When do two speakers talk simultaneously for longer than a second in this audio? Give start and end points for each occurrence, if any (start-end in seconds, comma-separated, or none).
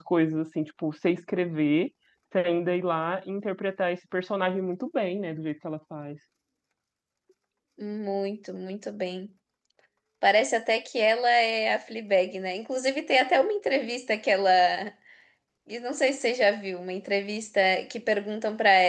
none